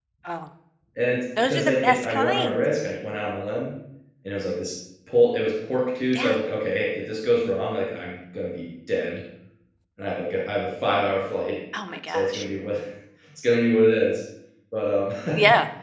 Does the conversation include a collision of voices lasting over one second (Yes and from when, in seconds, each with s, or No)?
Yes, from 1.4 s